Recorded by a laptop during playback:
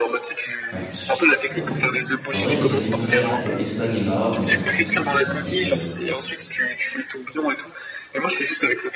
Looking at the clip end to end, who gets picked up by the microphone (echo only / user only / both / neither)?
both